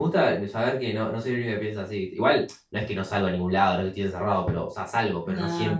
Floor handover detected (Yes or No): No